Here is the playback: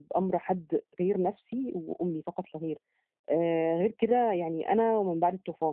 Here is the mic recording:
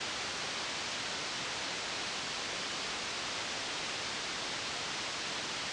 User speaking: No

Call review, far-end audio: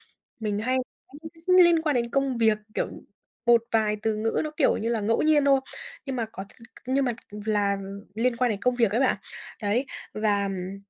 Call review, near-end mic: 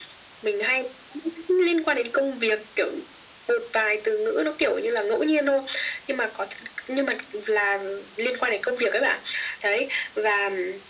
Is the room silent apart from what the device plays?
Yes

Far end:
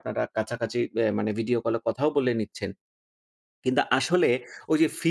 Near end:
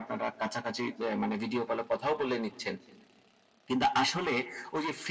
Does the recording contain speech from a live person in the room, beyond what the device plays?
No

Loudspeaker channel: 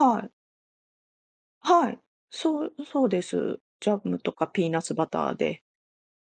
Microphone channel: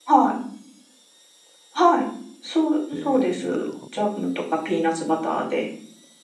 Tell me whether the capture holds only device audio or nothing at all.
No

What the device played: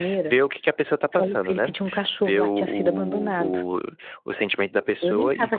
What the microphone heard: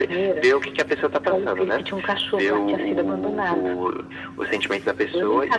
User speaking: No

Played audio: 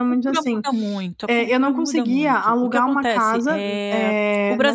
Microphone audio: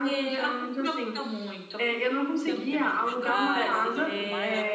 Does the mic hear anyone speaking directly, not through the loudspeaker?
Yes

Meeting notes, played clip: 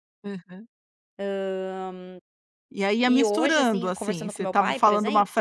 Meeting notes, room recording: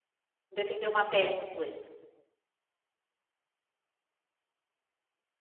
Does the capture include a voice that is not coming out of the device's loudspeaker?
Yes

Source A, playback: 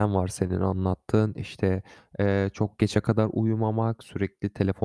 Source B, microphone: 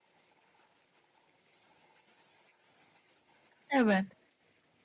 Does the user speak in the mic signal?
Yes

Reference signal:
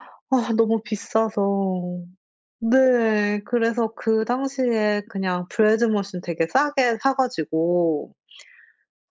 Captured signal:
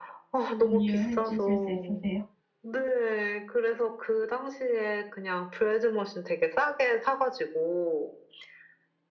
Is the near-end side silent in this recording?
No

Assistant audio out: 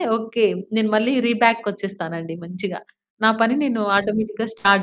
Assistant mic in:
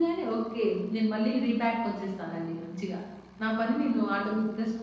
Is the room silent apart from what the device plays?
Yes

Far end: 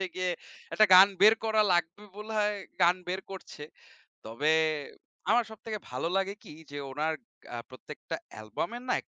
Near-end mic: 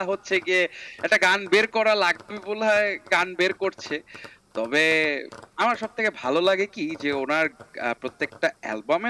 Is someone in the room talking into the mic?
No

